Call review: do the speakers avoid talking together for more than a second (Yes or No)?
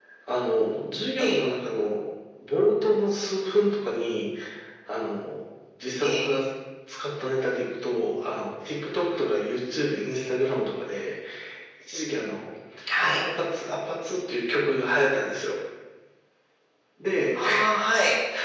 Yes